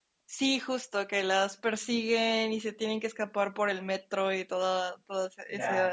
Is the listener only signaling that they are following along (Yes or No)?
No